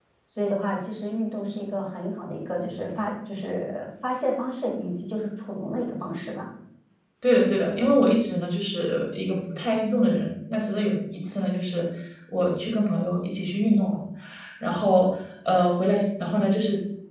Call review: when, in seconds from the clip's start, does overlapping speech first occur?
none

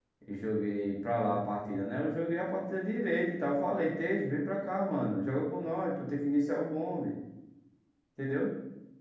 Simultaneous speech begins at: none

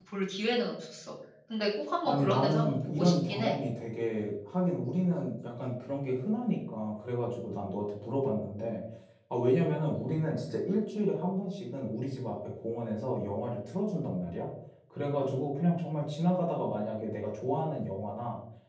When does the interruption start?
2 s

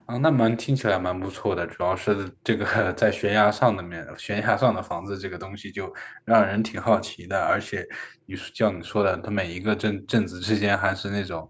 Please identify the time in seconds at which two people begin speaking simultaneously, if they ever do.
none

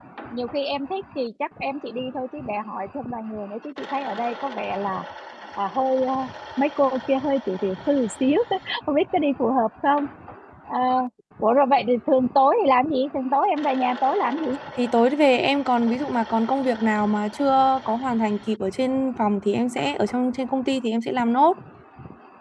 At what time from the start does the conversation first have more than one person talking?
none

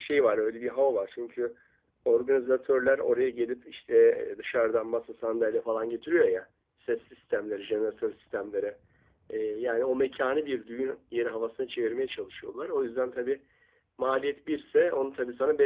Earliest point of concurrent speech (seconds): none

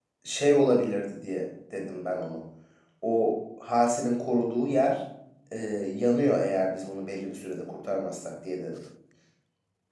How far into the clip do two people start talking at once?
none

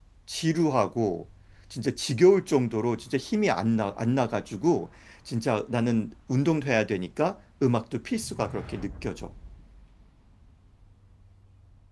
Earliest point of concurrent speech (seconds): none

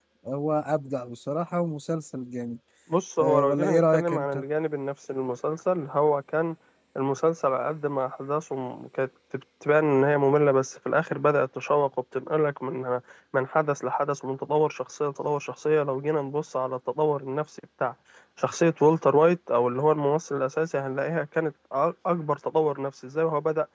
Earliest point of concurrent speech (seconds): 3 s

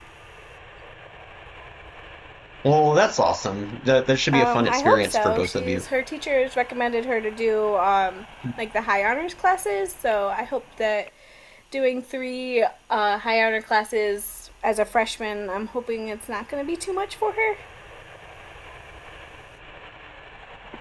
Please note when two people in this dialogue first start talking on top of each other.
4 s

